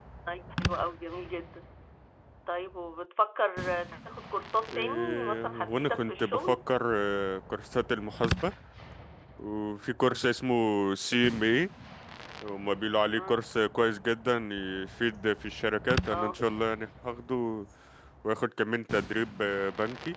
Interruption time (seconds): 5 s

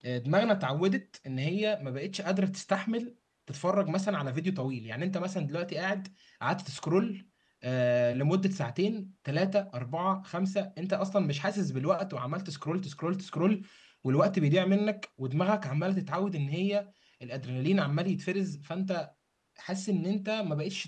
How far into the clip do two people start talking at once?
none

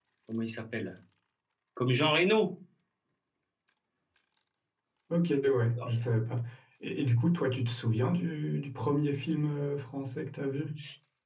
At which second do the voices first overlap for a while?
none

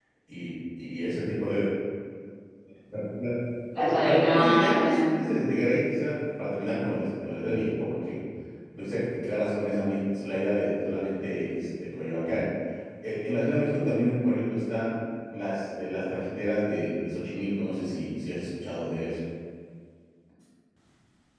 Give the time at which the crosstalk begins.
4 s

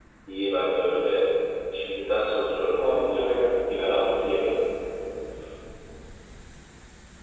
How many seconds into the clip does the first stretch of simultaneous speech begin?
3 s

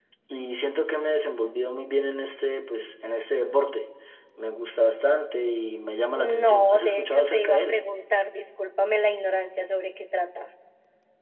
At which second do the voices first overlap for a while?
6 s

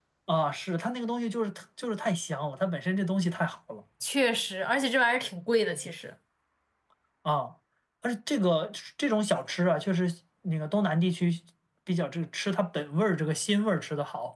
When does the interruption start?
none

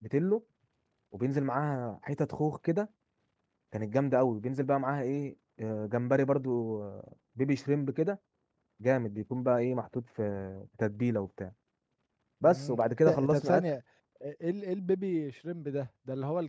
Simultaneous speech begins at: 12 s

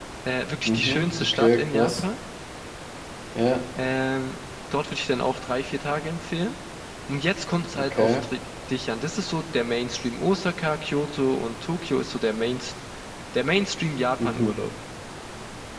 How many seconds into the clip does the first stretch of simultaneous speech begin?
1 s

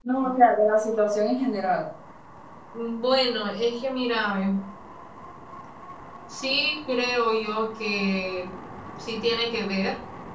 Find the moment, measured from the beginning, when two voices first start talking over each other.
none

